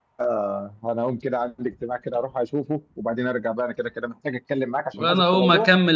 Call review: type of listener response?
taking over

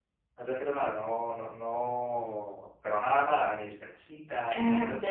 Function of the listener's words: taking over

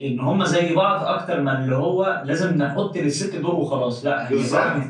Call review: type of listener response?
taking over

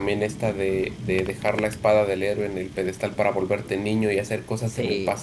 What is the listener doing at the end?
listening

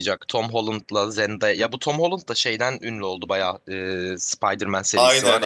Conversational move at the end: taking over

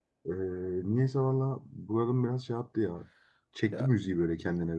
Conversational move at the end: taking over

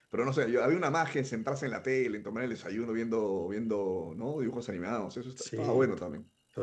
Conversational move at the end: taking over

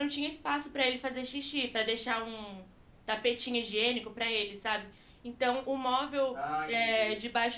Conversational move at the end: listening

